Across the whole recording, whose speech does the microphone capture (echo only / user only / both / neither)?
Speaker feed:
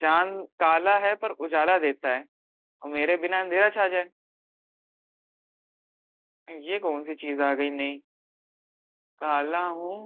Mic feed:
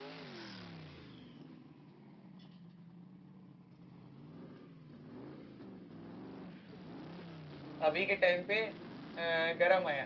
user only